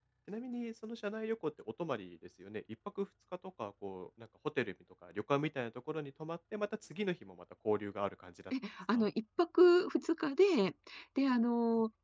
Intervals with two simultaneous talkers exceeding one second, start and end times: none

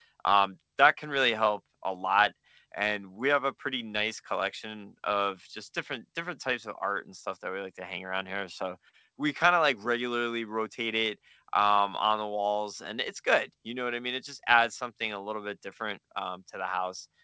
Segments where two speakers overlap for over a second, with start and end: none

